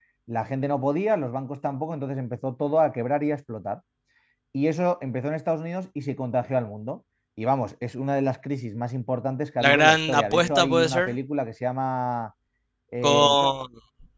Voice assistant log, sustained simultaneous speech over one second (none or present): present